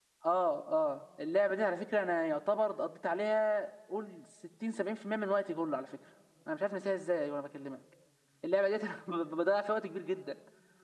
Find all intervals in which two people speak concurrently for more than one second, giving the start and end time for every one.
none

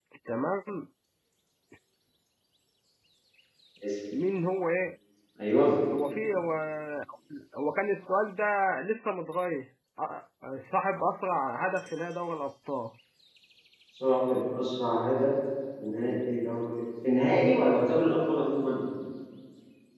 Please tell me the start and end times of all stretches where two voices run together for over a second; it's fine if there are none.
none

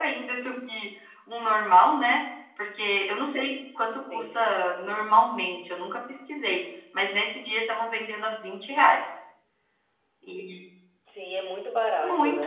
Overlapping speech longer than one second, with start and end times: none

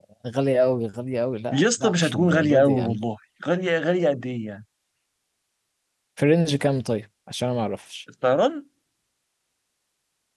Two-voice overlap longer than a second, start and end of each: 1.5-3.0

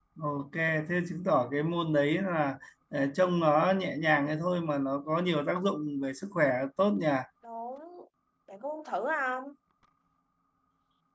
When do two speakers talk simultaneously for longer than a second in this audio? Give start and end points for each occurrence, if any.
none

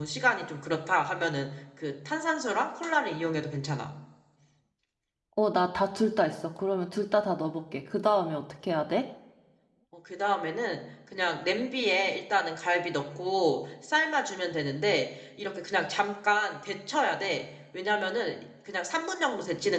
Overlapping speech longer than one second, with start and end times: none

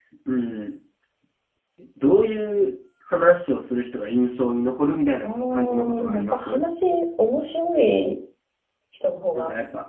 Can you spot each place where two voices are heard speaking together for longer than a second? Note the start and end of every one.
5.2-6.6

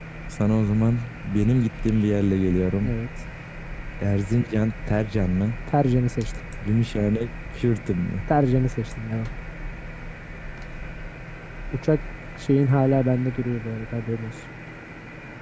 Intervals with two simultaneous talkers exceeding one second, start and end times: none

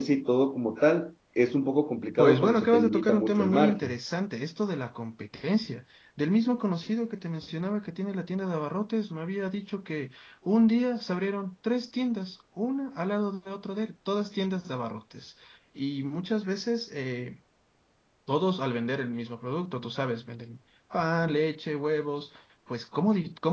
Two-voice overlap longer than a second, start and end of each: 2.2-3.9

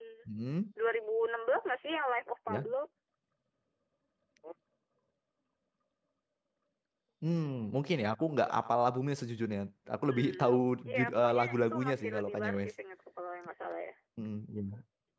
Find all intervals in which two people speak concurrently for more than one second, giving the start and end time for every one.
10.9-12.7

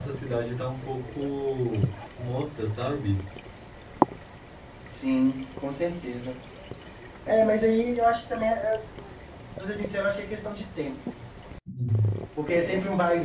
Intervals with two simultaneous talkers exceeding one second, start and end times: none

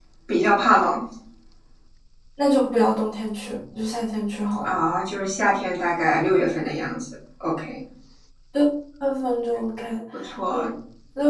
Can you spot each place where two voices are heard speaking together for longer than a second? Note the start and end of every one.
none

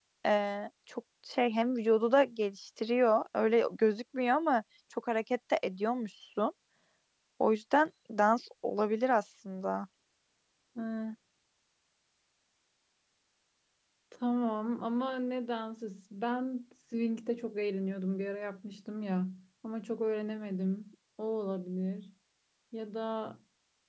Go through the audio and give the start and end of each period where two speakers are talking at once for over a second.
none

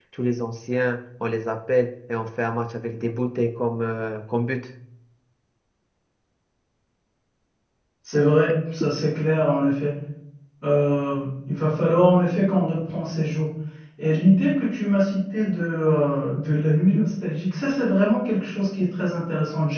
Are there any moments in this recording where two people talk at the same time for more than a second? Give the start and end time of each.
none

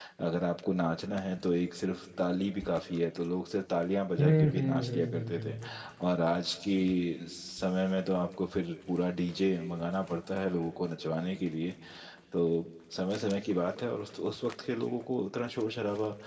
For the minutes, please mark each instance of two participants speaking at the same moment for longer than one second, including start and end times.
4.2-5.5

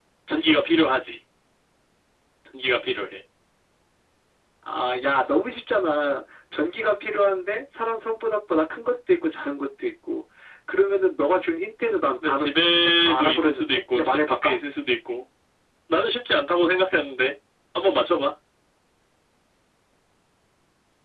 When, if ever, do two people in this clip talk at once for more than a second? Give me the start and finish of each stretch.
12.2-14.6

